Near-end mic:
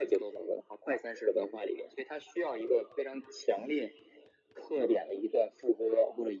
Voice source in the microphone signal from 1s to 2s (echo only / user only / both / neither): echo only